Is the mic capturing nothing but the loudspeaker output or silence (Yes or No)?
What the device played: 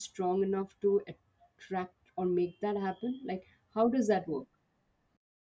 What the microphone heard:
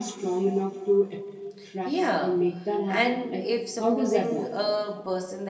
No